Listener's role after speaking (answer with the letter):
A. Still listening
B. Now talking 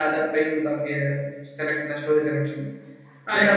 B